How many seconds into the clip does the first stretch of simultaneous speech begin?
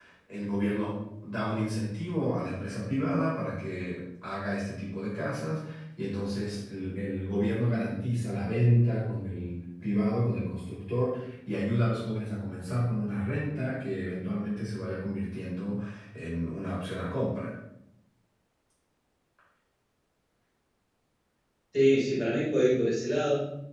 none

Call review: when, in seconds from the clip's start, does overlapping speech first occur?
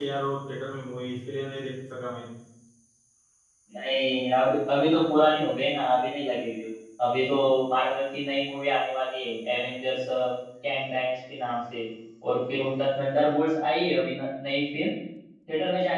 none

